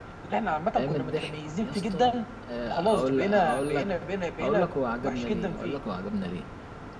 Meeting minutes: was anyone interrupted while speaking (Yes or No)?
Yes